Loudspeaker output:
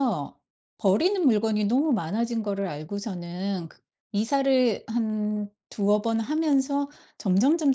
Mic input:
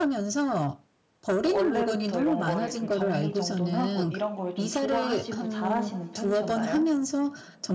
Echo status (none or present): present